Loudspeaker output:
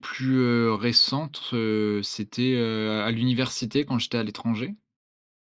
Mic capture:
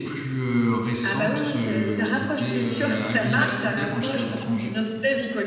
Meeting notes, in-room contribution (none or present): present